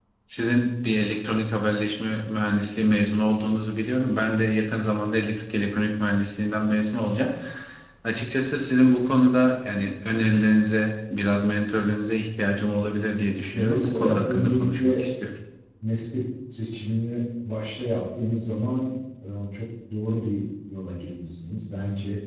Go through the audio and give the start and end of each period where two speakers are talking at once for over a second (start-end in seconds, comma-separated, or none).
13.4-15.0